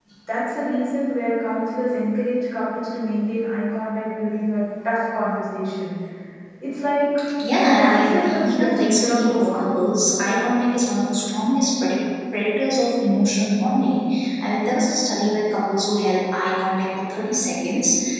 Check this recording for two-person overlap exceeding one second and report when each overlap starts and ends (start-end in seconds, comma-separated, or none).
7.6-9.7